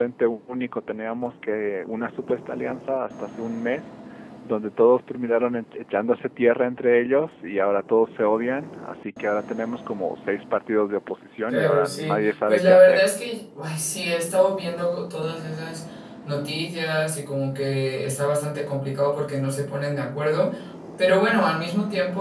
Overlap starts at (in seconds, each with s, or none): 11.5 s